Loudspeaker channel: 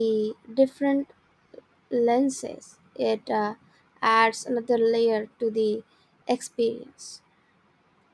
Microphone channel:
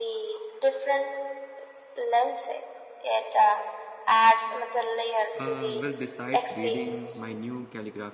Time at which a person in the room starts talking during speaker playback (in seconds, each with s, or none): 5.4 s